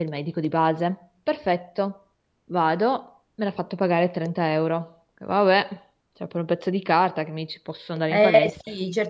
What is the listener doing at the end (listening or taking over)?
taking over